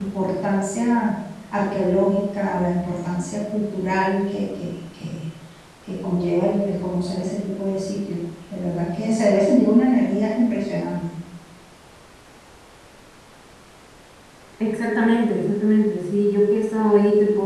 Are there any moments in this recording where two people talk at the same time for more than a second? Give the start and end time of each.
none

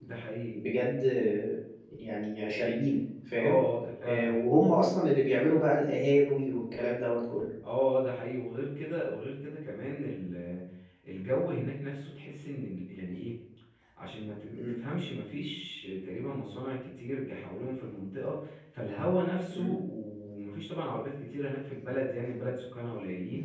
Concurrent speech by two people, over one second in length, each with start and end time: none

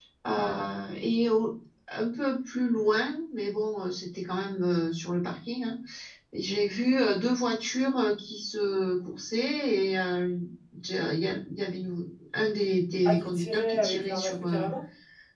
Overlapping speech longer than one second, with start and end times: 13.1-14.7

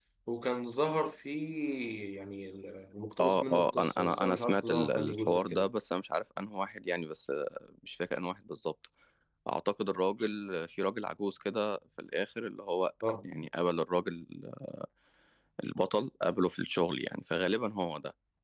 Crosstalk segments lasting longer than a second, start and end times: 3.2-5.7

